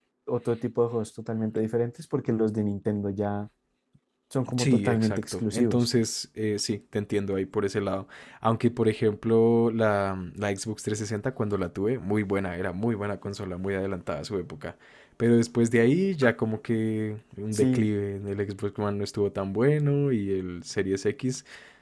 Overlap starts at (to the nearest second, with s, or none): 5 s